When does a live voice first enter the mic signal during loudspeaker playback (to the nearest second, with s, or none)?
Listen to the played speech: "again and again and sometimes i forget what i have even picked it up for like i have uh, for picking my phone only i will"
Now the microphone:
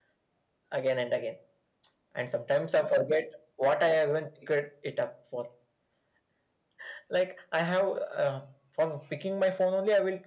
none